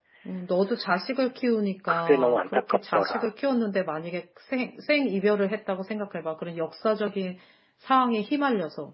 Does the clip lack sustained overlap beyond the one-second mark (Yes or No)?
No